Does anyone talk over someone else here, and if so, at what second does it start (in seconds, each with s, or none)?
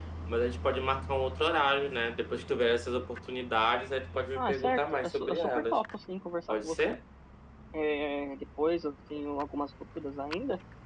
4.3 s